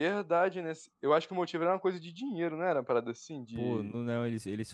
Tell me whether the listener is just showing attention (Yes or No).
No